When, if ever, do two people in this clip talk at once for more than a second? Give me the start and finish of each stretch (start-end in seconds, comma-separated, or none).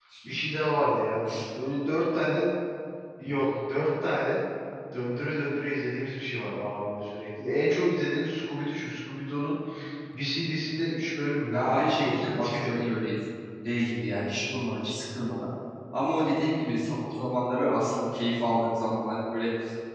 11.5-12.8